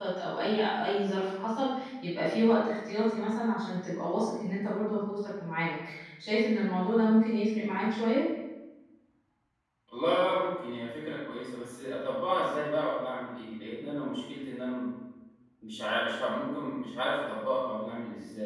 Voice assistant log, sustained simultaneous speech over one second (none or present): none